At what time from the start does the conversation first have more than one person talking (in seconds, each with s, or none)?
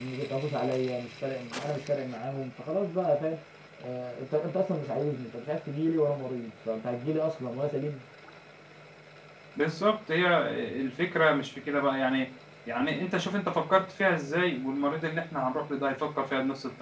none